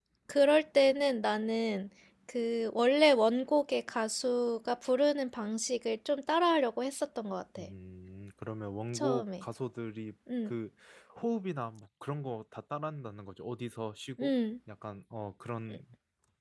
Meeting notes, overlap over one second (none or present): none